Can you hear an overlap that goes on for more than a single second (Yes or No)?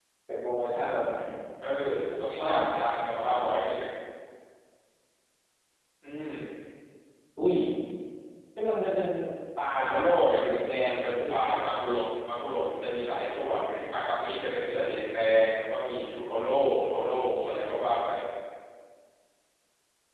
Yes